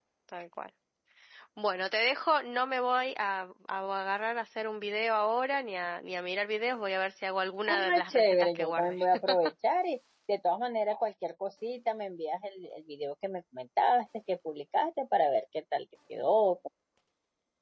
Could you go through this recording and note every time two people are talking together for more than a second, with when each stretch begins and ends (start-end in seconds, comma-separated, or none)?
7.7-9.0